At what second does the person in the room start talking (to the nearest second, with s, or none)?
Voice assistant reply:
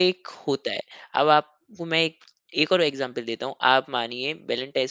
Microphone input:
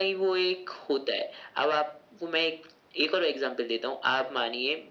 none